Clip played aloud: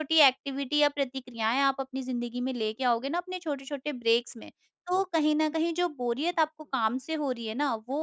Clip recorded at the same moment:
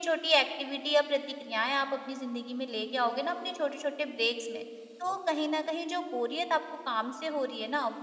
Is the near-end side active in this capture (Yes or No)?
No